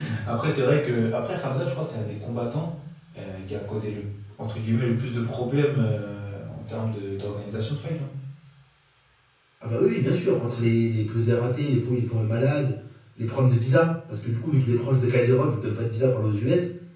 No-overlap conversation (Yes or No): Yes